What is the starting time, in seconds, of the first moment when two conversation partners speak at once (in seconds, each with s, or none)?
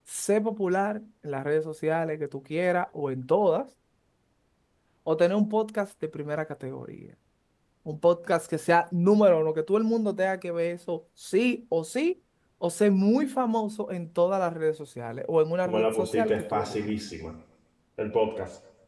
15.7 s